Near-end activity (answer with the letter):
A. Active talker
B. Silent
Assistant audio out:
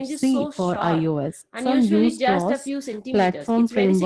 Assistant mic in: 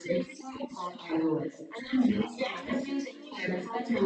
A